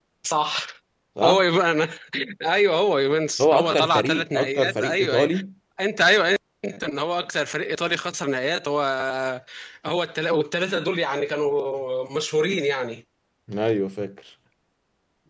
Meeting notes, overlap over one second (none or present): present